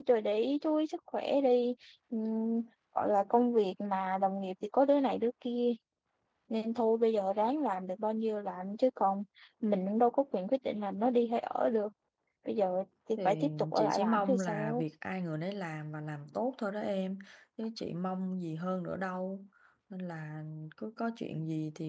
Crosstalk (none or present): present